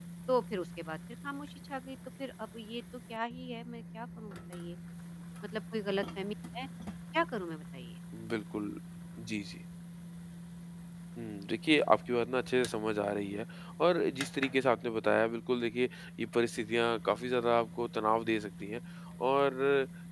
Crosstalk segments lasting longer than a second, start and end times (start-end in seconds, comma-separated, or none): none